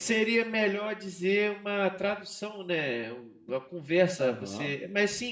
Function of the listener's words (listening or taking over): listening